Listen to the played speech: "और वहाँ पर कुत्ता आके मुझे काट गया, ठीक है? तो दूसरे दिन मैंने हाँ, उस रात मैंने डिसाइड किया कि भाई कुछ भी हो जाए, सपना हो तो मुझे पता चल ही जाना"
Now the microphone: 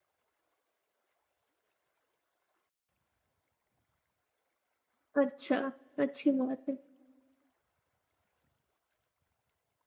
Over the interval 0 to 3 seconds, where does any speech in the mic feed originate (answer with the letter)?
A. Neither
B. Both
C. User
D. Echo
A